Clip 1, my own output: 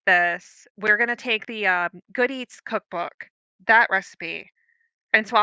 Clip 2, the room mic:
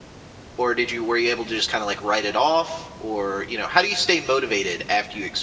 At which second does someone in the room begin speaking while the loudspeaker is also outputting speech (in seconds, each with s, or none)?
0.6 s